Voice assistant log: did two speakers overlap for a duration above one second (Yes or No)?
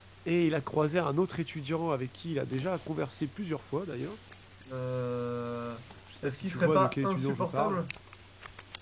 Yes